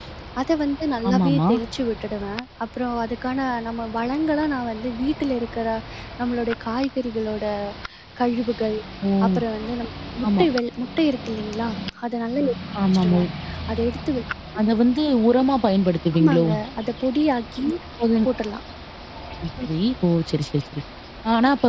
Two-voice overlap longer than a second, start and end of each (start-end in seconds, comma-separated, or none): none